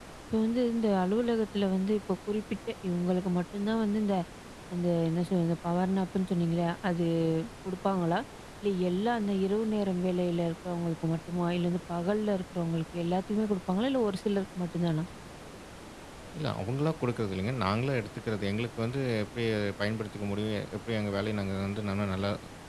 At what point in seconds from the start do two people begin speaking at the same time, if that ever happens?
none

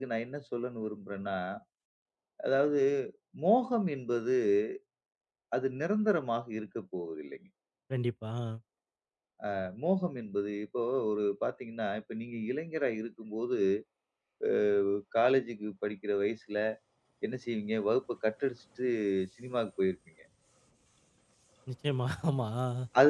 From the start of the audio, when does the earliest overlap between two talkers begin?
none

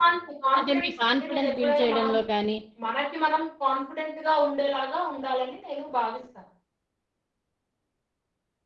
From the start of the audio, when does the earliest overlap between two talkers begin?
0.6 s

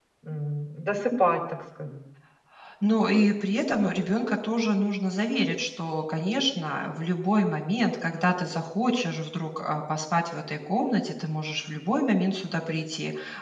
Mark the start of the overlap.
none

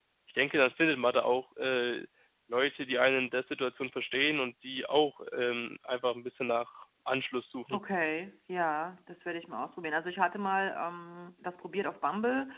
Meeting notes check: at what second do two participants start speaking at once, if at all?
none

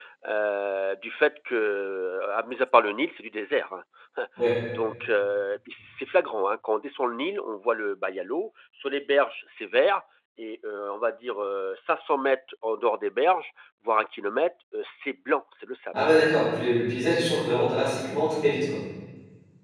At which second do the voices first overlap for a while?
none

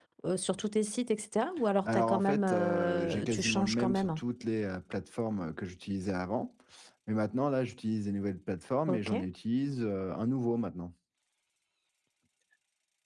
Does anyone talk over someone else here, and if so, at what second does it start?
1.8 s

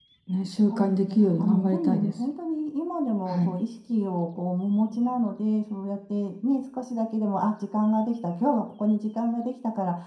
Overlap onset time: 0.7 s

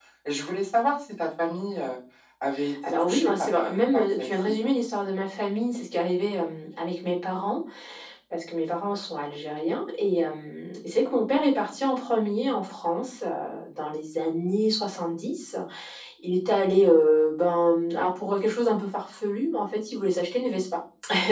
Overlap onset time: 3.0 s

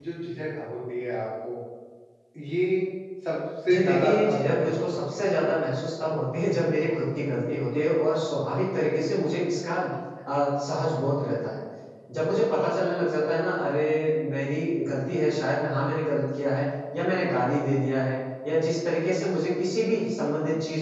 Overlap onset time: 3.7 s

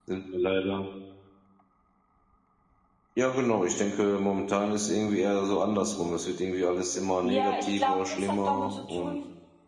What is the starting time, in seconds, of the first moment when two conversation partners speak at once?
7.2 s

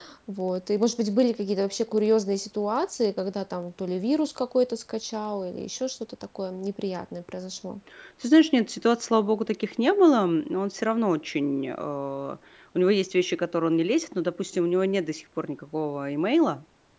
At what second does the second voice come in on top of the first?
none

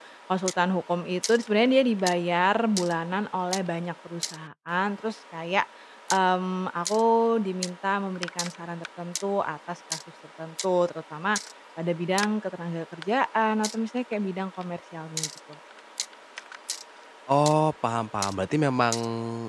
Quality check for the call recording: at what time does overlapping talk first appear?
none

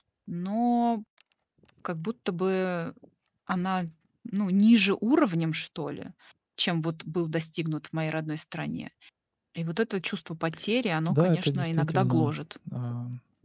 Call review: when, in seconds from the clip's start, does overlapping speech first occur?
11.1 s

